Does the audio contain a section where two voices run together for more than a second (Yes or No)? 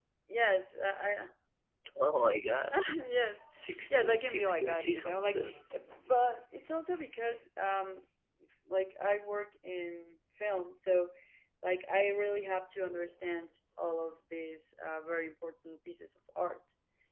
Yes